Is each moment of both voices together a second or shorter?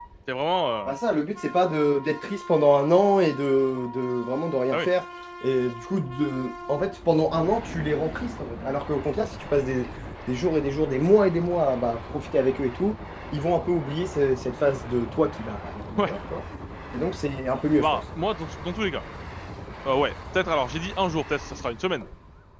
Yes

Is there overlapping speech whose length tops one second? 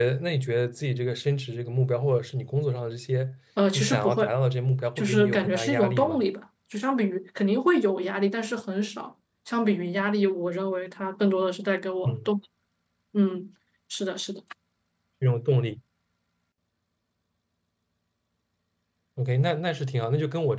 Yes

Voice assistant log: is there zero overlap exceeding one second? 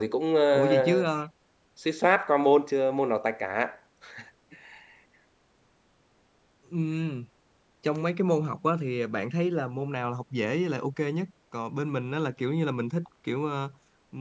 Yes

